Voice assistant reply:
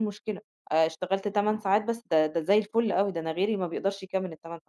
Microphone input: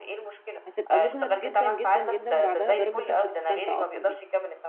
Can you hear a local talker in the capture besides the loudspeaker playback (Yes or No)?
Yes